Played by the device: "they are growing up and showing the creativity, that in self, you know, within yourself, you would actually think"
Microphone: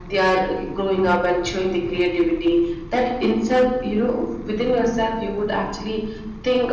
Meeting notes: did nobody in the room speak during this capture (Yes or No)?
Yes